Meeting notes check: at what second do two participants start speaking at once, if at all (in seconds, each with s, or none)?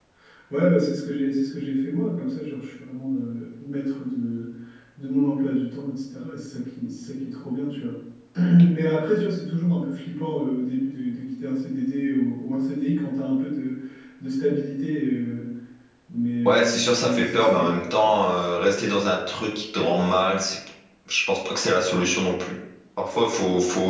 16.4 s